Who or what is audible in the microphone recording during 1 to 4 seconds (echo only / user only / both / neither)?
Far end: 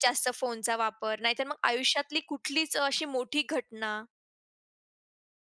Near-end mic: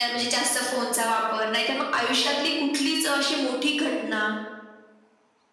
echo only